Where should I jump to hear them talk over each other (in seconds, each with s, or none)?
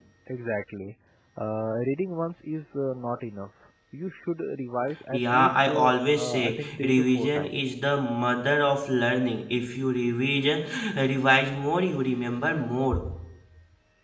5.1 s